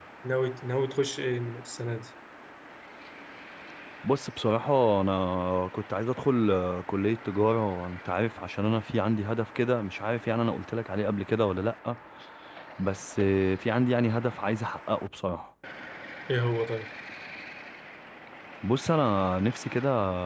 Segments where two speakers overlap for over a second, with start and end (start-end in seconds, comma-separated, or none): none